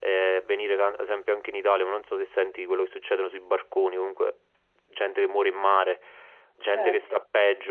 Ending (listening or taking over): listening